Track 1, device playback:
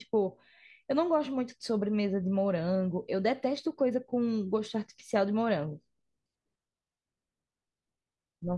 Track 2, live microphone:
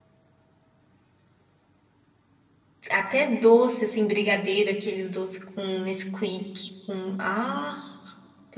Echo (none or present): none